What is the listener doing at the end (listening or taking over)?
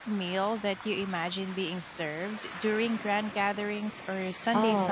taking over